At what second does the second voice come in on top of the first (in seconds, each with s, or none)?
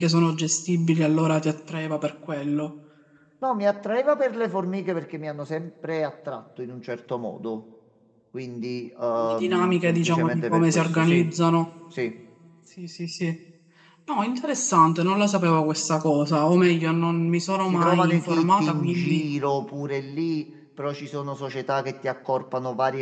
9.2 s